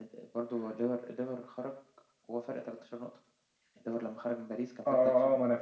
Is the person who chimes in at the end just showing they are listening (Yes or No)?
No